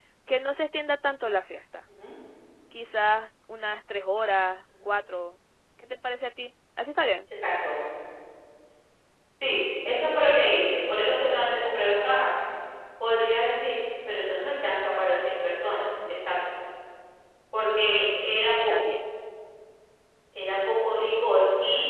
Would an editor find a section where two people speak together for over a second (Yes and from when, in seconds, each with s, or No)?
No